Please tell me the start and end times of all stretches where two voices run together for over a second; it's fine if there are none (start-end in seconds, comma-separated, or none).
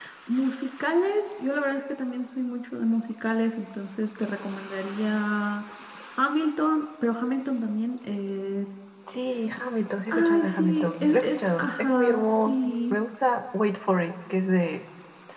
10.1-12.9